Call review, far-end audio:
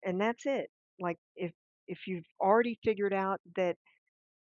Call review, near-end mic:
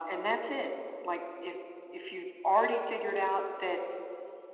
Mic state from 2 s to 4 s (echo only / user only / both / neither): echo only